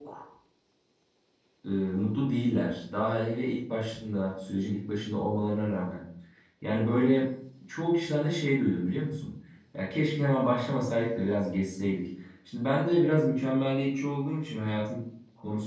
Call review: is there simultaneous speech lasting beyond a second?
No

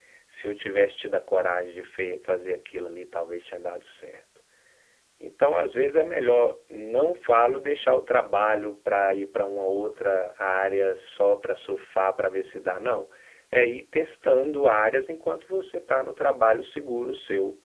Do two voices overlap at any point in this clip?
No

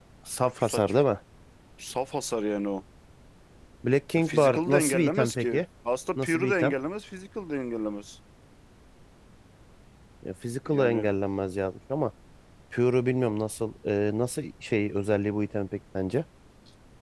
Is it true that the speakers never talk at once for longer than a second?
No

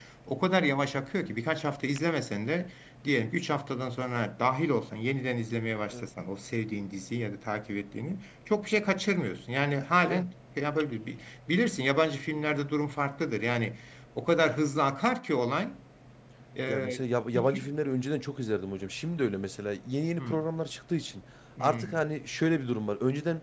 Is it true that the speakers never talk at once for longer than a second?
Yes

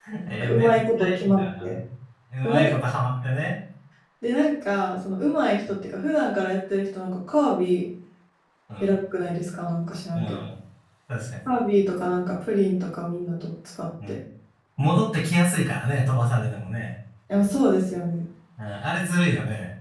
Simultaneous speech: Yes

